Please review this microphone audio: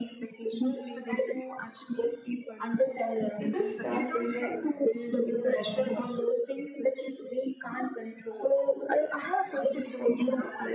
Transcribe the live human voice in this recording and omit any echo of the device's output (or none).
It just start listening